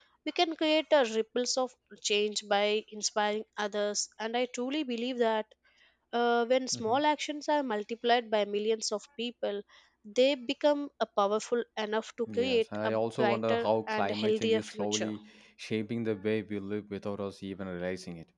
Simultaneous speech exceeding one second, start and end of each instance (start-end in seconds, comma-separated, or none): 12.4-15.1